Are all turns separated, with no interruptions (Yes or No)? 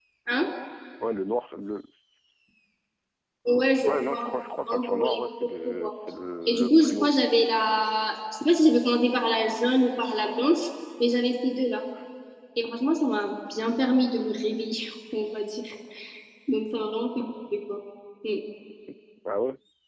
No